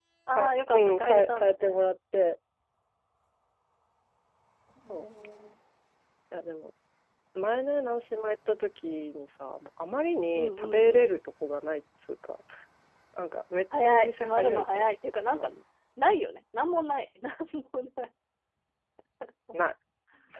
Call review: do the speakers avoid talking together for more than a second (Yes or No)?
No